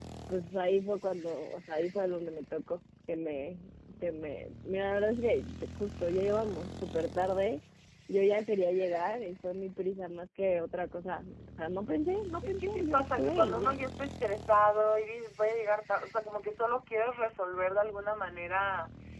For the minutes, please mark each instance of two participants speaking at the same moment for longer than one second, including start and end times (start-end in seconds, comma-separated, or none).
12.4-13.8